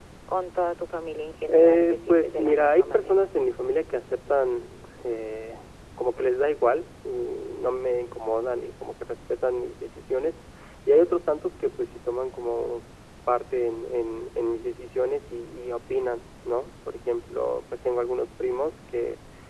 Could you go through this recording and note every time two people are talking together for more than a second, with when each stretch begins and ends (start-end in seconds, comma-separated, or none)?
1.5-3.2